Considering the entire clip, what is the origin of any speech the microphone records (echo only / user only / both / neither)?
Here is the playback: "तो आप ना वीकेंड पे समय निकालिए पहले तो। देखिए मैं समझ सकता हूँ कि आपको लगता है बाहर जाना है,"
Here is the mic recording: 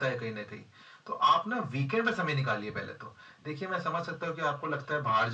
echo only